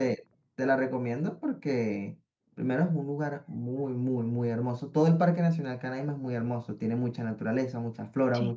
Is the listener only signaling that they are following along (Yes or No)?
Yes